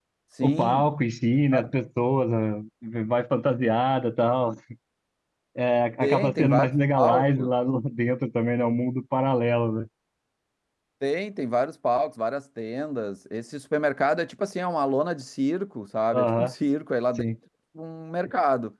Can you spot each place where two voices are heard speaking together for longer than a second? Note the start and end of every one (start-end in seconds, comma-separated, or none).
6.0-7.5